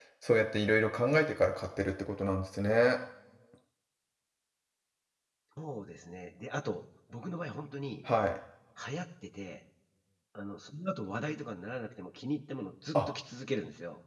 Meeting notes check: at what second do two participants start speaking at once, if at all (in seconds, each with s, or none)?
none